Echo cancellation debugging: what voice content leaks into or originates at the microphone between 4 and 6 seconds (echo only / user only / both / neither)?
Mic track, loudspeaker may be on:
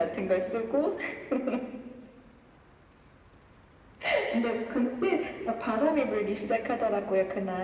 echo only